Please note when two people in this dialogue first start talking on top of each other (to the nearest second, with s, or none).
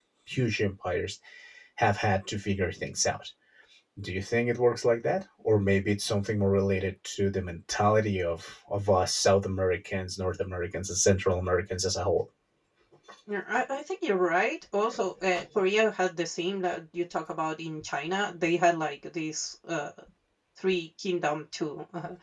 none